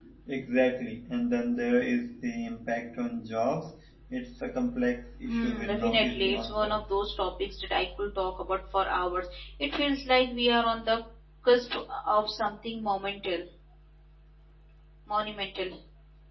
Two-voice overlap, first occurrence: 5.3 s

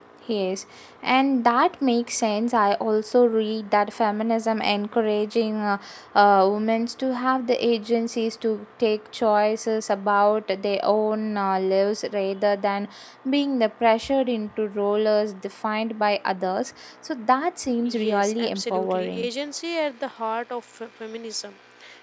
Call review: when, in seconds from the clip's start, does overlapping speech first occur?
17.8 s

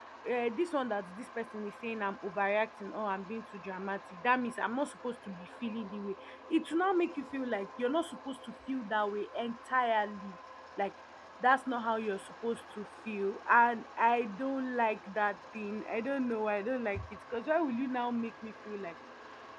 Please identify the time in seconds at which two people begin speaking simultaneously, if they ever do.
none

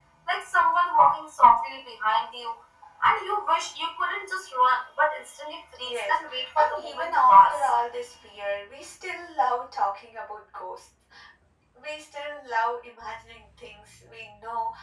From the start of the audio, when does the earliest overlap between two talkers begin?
5.8 s

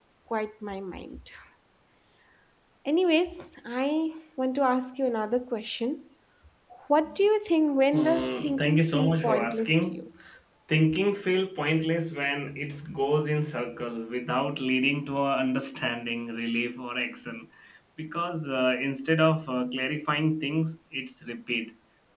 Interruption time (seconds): 7.9 s

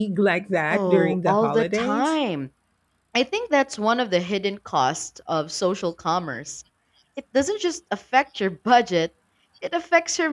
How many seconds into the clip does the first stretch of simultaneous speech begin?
0.7 s

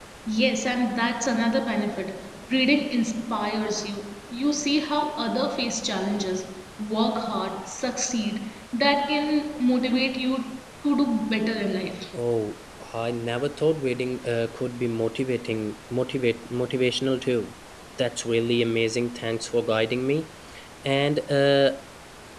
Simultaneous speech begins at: none

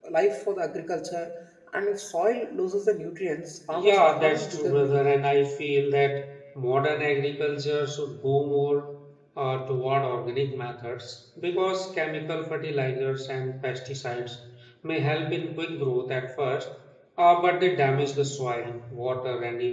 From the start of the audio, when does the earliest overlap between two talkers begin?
3.7 s

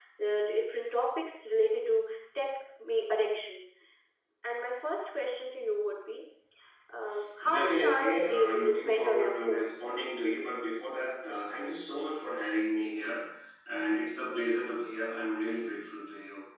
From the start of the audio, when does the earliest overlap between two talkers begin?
7.4 s

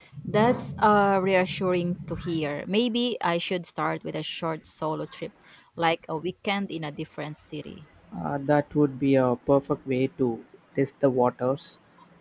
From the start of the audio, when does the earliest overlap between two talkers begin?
none

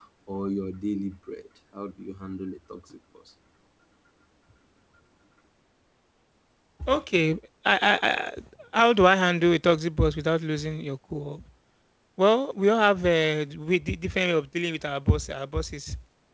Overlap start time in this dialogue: none

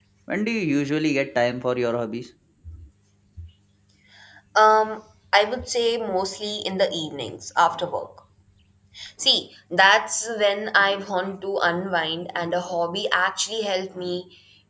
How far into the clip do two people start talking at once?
none

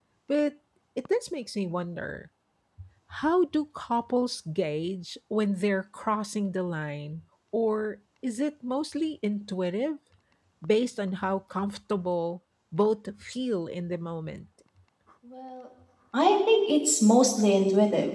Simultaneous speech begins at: none

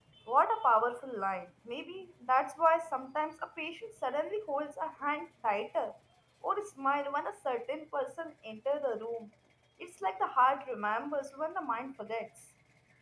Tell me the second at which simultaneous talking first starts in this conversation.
none

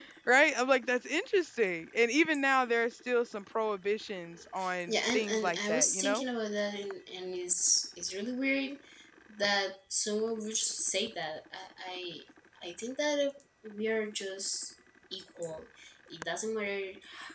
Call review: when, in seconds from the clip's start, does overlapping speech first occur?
4.9 s

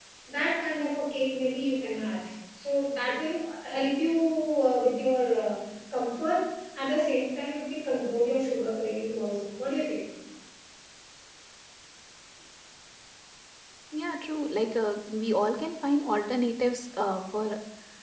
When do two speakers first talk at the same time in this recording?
none

